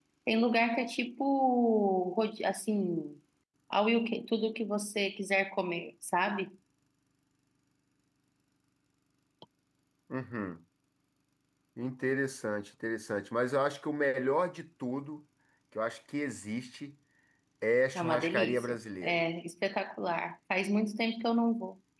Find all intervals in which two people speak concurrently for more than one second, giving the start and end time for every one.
17.9-19.2

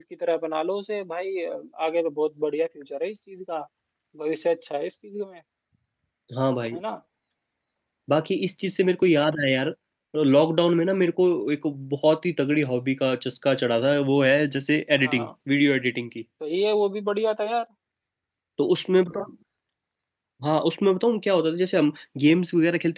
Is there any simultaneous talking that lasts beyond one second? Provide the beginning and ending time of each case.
none

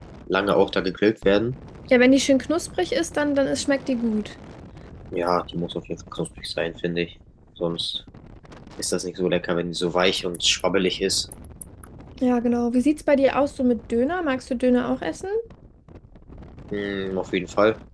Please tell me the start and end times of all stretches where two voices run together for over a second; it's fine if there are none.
none

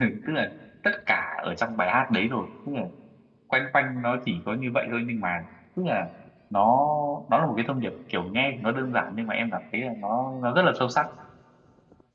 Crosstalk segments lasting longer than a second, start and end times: none

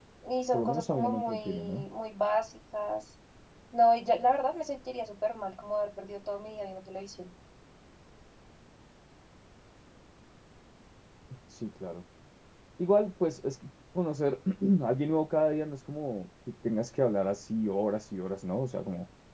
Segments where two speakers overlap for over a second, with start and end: 0.5-1.8

